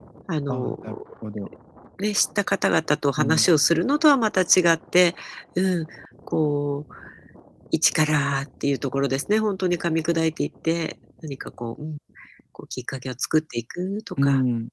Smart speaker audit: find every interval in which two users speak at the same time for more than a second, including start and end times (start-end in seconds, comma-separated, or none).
none